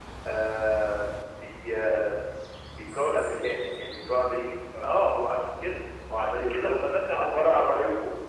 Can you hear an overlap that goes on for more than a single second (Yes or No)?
Yes